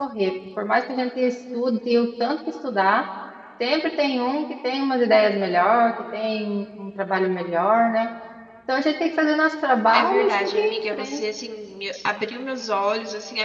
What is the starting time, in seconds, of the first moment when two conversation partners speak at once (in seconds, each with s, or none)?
9.9 s